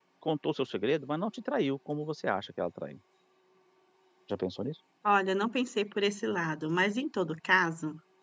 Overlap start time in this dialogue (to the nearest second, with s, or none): none